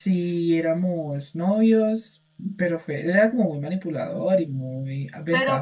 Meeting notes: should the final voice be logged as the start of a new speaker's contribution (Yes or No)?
Yes